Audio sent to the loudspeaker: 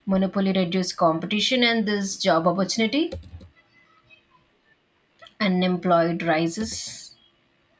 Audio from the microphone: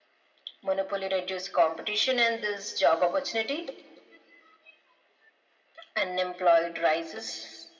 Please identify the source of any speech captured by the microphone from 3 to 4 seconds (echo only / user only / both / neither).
echo only